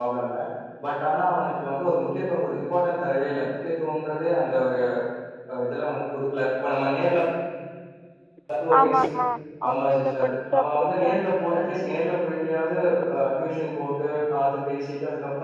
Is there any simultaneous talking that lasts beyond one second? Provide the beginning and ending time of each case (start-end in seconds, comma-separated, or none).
9.7-11.2